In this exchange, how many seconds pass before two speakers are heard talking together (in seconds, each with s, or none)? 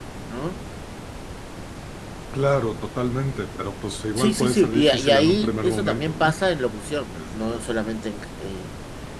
4.2 s